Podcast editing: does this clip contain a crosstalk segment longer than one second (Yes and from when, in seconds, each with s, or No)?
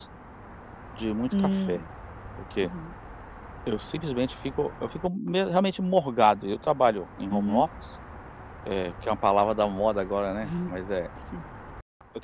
No